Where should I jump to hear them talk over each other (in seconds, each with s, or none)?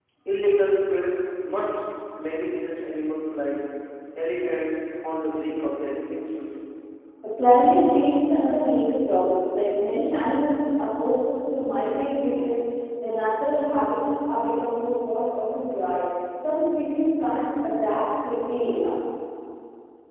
none